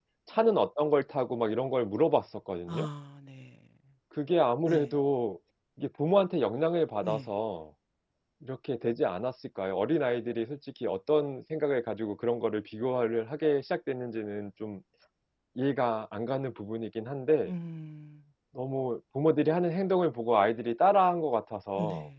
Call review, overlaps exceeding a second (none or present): none